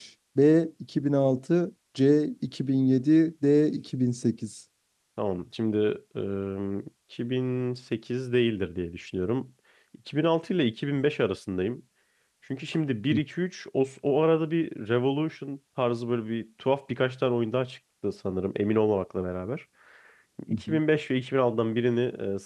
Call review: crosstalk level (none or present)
none